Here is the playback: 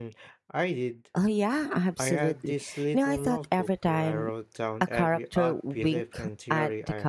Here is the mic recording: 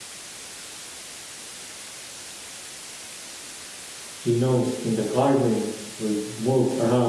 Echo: none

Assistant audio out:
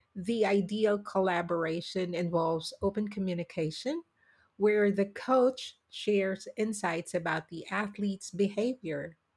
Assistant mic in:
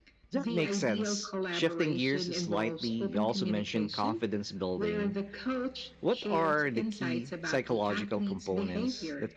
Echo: present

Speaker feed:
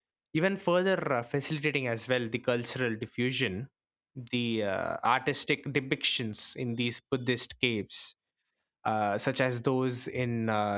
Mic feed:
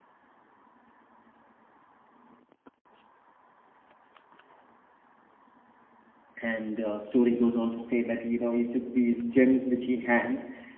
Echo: none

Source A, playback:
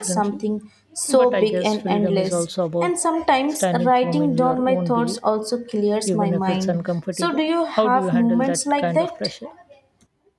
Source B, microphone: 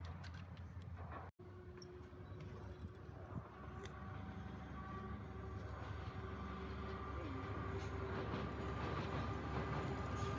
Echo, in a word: none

